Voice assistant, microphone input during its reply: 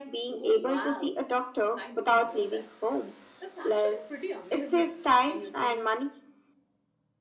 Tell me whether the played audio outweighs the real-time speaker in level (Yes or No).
Yes